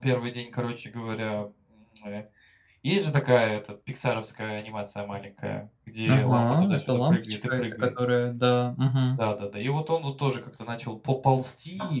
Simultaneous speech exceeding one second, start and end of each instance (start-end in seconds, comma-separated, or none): 6.1-7.9